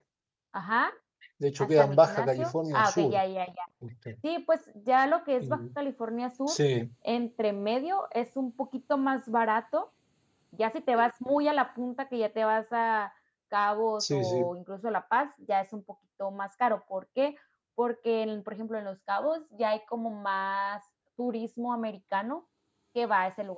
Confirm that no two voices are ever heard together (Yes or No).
No